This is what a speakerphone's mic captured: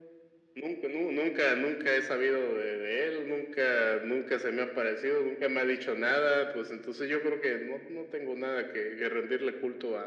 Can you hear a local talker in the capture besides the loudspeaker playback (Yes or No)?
No